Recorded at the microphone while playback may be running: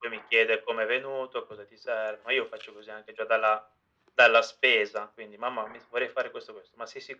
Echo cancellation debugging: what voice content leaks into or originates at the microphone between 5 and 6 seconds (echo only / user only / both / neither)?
echo only